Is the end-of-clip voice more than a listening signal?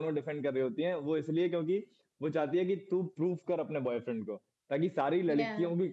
No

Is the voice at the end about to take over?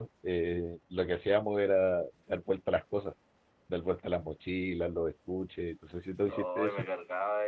Yes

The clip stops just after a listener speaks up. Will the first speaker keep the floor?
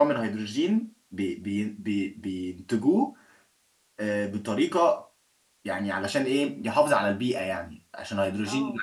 Yes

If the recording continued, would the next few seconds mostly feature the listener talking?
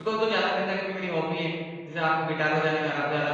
Yes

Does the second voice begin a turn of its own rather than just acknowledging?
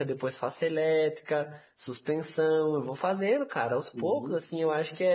No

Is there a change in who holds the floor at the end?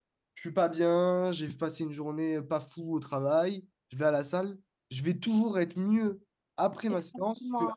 Yes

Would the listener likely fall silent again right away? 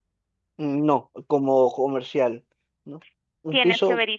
No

